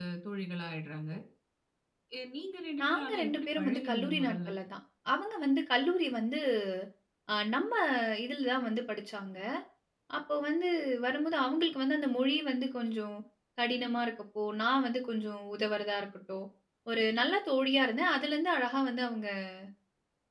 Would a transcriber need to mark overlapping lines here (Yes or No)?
Yes